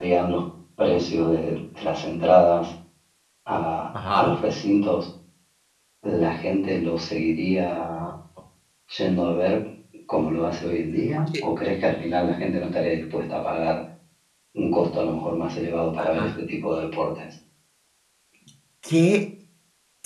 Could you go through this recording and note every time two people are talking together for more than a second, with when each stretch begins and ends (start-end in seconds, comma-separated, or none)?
none